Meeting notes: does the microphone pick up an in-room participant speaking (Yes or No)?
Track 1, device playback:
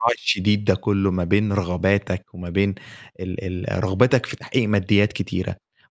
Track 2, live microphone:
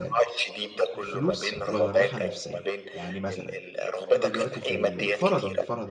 Yes